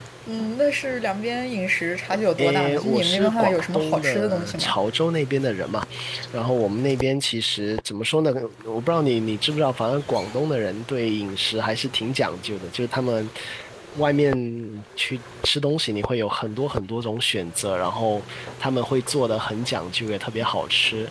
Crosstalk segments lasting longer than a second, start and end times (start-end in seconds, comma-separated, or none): 2.4-4.7